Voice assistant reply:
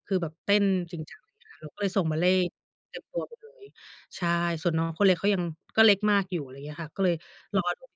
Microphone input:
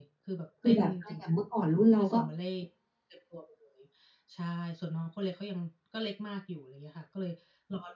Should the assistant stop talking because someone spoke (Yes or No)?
Yes